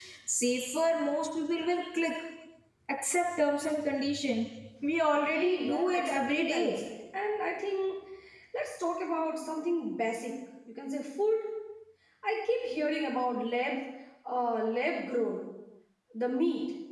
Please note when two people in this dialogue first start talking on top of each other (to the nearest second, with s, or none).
5 s